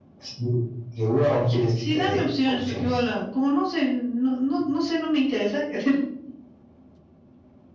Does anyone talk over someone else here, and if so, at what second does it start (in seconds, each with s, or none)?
1.8 s